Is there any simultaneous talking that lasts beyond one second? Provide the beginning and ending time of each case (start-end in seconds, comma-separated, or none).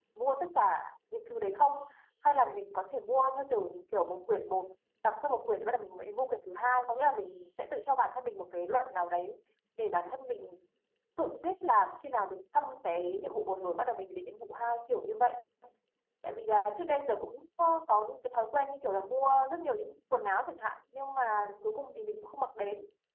none